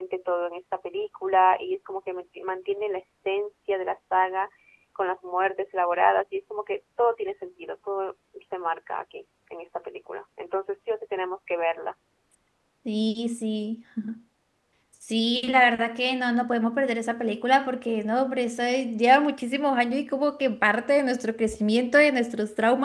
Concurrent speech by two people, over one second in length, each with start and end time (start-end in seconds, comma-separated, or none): none